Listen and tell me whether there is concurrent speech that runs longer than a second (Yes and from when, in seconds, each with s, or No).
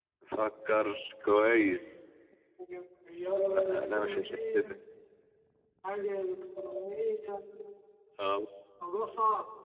Yes, from 3.5 s